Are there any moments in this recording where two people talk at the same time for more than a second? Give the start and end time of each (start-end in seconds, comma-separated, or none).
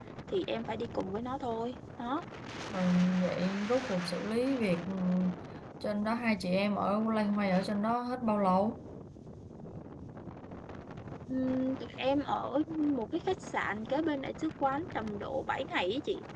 none